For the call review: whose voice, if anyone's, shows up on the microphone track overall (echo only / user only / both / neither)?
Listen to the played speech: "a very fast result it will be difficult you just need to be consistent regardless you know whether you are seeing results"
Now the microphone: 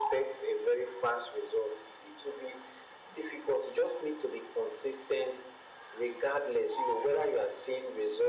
echo only